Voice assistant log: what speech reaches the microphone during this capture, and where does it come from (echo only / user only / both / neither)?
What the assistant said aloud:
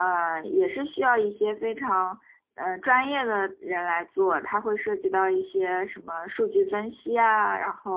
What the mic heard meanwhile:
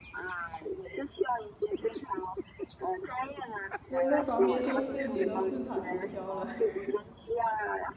both